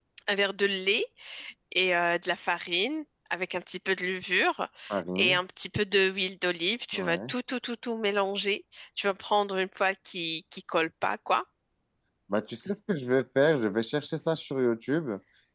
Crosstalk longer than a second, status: none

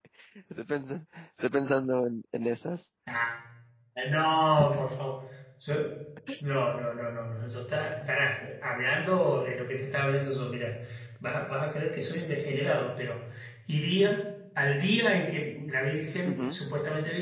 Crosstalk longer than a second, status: none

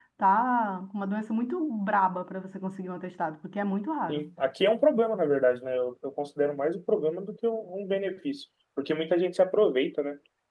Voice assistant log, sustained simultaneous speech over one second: none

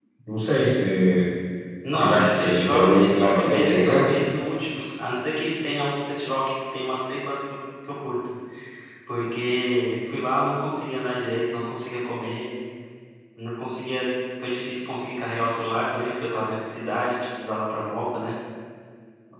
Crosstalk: present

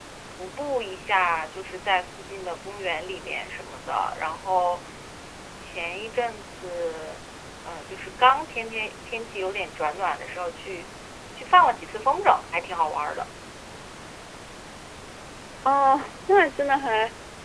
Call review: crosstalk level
none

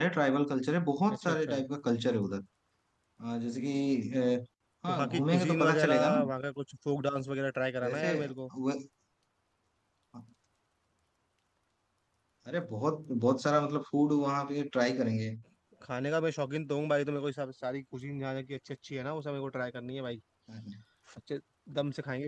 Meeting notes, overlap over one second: present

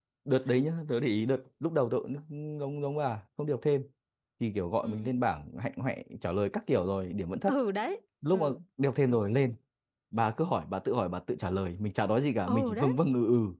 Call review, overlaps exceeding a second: none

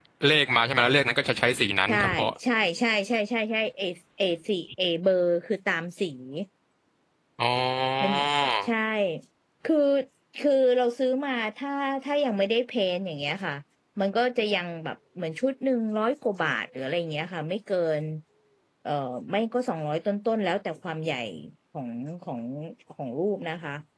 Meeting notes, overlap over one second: none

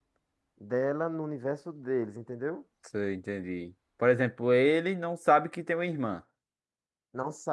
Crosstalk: none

